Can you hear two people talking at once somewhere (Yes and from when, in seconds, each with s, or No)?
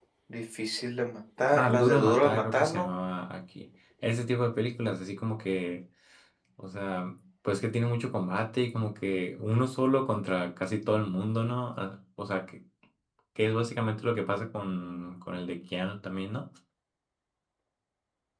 Yes, from 1.5 s